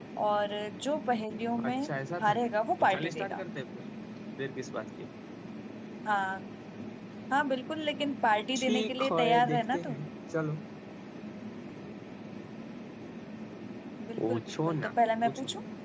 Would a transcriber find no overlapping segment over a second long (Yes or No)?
No